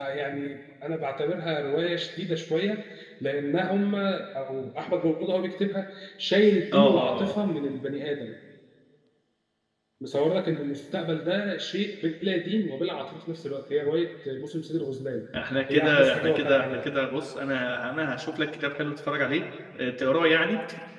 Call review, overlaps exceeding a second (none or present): present